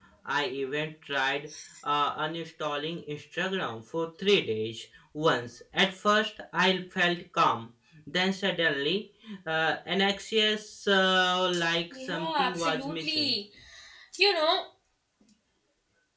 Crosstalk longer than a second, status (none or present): present